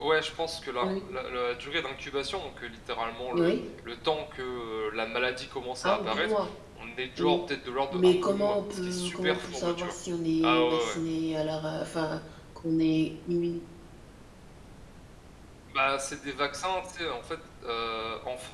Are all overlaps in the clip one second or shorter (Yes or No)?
No